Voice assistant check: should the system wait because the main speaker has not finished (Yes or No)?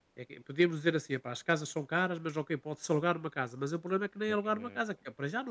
Yes